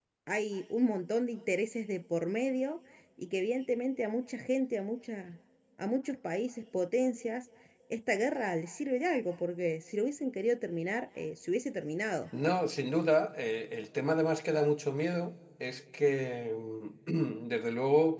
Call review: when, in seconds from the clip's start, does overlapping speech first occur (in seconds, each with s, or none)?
none